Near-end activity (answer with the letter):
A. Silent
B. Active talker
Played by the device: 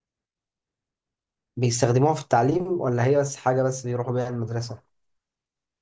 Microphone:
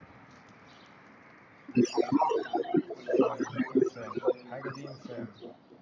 B